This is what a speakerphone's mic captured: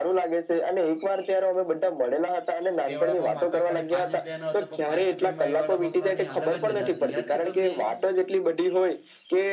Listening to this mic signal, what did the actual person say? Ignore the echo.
એ વડાપાવ માત્ર ખાલી પાંચ રૂપિયાનો હતો પણ પાંચ રૂપિયામાં એ વડાપઉ ખાવાની અલગ જ મજા આવતી યાદ છે તમને એ?

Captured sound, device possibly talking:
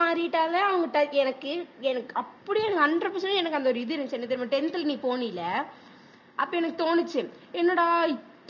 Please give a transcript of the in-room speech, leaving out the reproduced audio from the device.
none

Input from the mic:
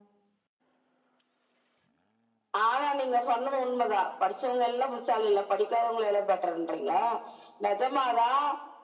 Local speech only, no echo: none

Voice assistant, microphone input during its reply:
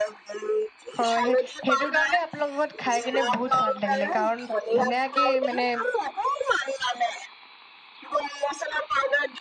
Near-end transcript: হয় সেই সেইটো কাৰণে আপোনালোক ত খাই কেনে বহুত সোৱাদ লাগিলে কাৰণ ধুনীয়াকে মানে

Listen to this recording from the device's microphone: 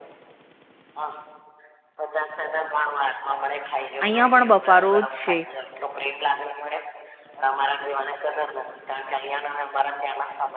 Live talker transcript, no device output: અહિયાં પણ બફારો જ છે.

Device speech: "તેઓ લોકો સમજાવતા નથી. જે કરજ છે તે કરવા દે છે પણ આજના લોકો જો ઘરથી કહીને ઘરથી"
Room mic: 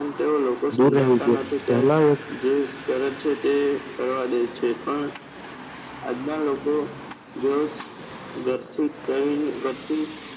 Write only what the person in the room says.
દૂર રહેવું જોઈએ પહેલા એ

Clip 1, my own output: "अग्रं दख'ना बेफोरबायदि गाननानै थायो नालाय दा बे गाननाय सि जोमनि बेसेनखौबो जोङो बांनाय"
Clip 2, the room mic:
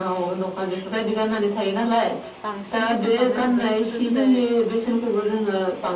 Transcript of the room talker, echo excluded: बांसिन बेसेन बांनाय नुदों गोदो गोदाय

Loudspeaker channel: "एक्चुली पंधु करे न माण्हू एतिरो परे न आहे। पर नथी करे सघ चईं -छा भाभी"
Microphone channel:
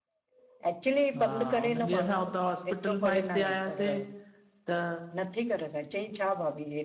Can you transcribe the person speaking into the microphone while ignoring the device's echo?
हा हुन ॾींहुं असां हुतां हॉ हॉस्पिटल मां हिते आयासीं त

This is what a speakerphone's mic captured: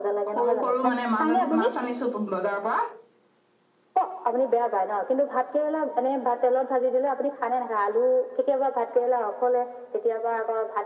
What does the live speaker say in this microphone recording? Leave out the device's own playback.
সৰু সৰু মানে মাছ আ মাছ আনিছো বজাৰৰ পৰা।

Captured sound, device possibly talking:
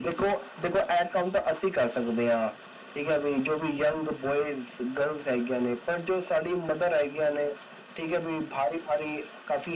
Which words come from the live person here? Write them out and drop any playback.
none

